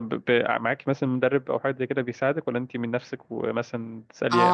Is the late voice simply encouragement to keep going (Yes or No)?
No